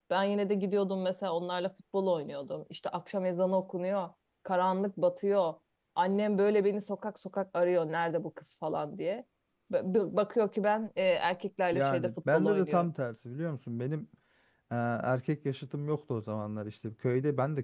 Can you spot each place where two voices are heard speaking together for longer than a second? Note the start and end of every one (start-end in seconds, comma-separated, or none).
11.7-12.9